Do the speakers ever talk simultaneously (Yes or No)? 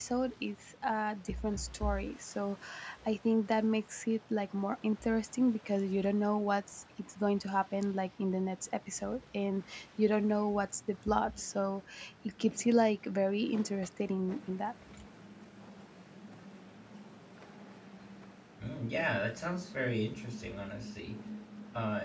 No